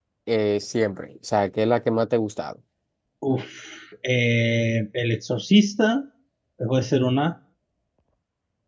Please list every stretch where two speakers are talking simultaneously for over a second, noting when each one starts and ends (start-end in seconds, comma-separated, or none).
none